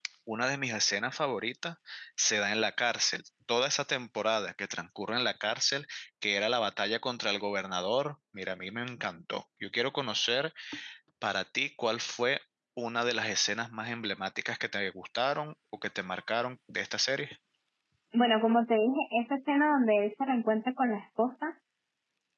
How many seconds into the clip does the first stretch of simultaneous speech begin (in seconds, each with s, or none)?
none